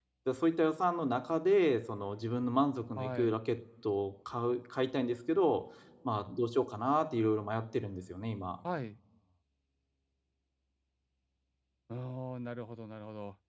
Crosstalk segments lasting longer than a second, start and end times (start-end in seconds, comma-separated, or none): none